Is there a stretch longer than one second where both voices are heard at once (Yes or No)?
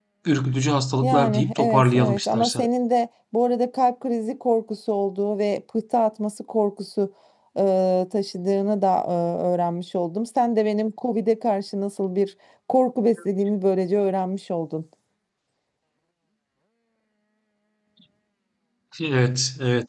Yes